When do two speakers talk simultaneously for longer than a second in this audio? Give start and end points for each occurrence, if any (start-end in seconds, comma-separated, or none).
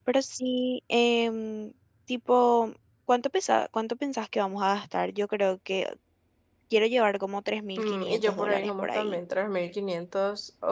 7.8-9.2